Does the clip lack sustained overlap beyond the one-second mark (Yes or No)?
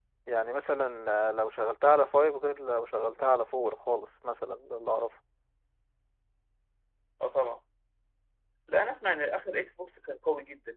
Yes